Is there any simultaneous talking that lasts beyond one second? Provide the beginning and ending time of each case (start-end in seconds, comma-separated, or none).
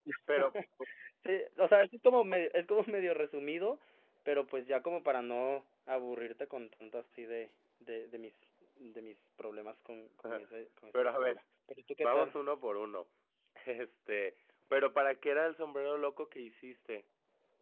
none